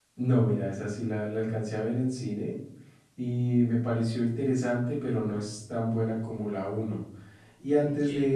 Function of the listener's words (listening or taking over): listening